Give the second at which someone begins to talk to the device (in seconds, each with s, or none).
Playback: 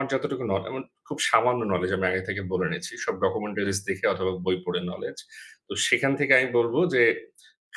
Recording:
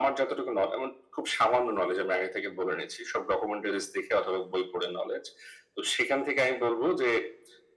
none